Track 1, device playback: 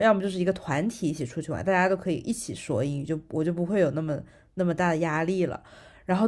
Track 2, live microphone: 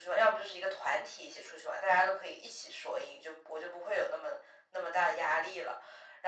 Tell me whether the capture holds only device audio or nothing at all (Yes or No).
Yes